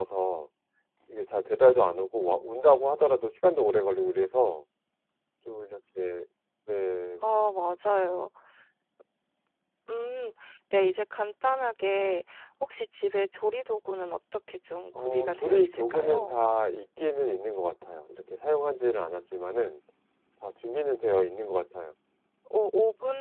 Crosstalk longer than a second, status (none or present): present